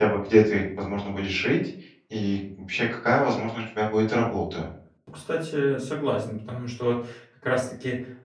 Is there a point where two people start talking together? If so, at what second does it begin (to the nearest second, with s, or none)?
none